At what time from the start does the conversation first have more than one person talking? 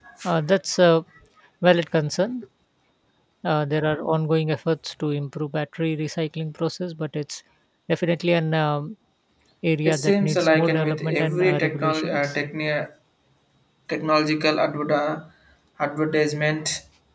9.8 s

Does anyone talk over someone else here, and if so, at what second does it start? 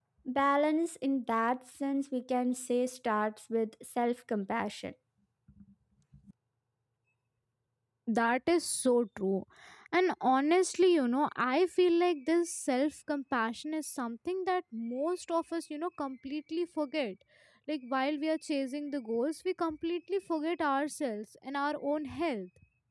none

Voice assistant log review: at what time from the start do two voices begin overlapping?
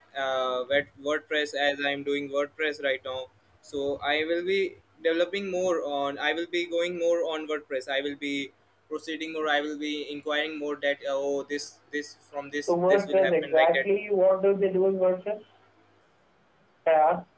12.6 s

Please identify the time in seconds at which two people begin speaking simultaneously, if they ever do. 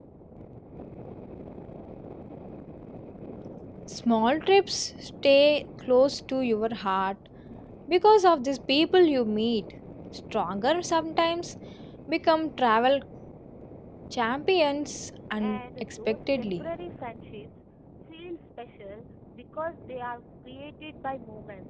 15.4 s

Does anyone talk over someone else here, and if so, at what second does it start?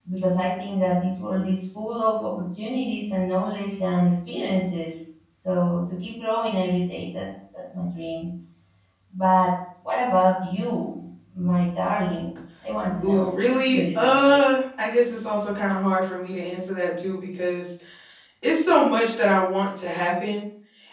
13.0 s

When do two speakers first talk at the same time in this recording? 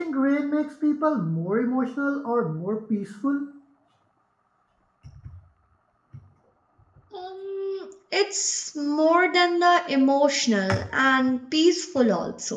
none

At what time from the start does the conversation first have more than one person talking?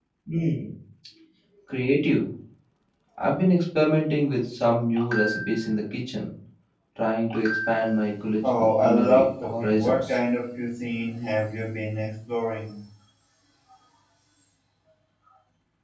8.4 s

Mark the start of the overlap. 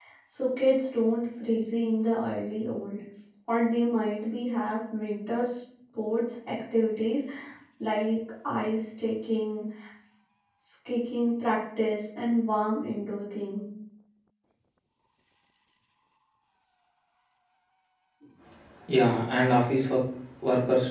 none

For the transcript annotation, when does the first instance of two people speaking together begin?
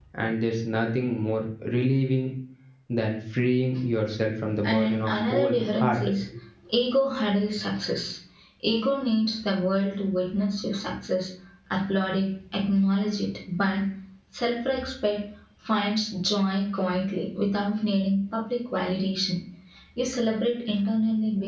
4.6 s

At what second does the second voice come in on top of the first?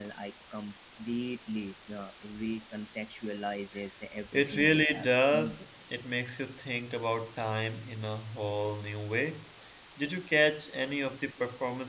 4.3 s

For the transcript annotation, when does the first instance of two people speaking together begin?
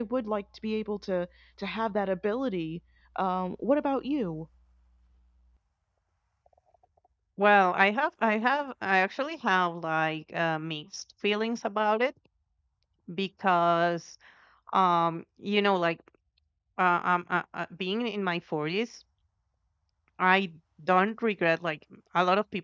none

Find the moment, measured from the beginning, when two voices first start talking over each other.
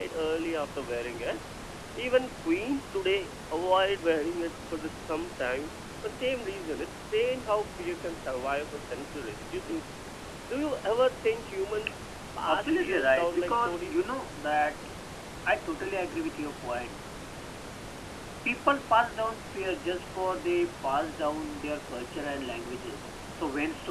12.5 s

